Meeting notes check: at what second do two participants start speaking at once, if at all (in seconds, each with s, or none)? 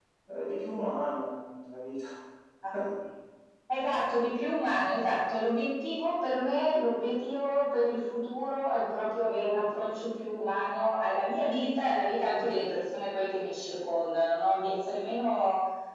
none